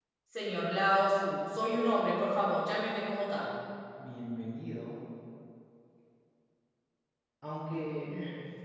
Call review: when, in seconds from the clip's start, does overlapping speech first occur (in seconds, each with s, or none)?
none